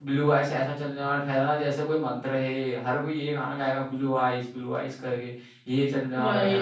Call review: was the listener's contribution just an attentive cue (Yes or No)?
Yes